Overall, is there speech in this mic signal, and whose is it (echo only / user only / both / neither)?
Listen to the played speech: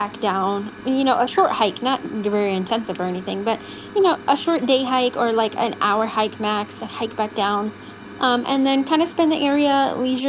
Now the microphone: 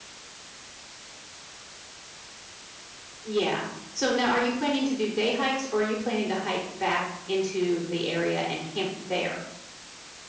user only